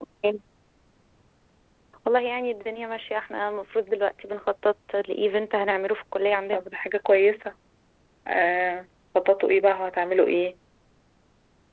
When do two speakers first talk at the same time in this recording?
none

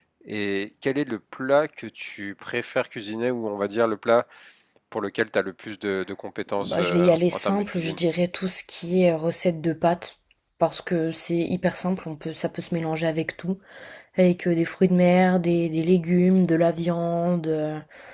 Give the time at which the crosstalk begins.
6.6 s

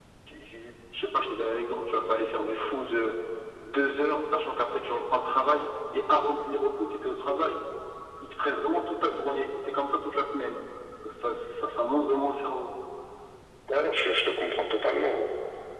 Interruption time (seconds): none

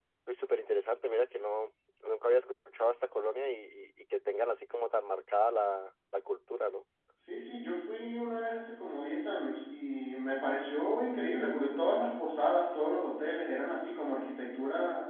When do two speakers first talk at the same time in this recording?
none

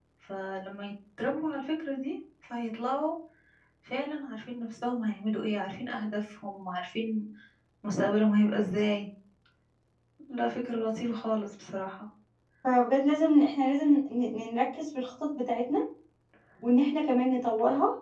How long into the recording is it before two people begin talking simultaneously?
none

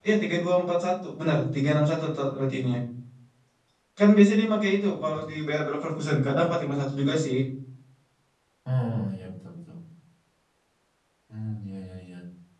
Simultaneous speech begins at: none

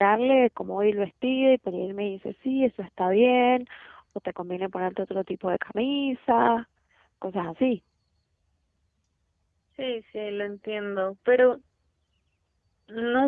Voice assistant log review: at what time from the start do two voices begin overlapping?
none

